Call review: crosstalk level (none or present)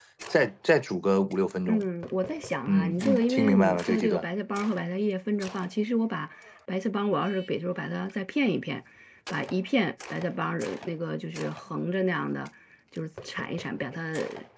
present